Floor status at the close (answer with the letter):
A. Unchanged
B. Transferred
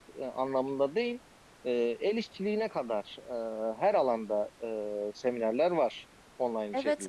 B